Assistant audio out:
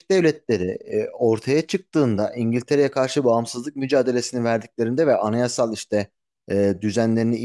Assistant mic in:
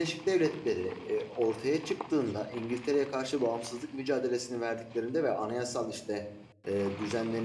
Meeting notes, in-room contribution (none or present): none